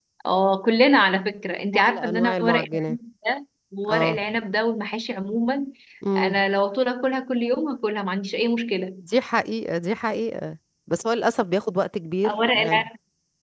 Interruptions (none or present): present